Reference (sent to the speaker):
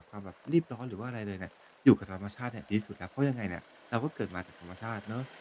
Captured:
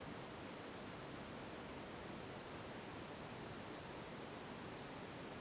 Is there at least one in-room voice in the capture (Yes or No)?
No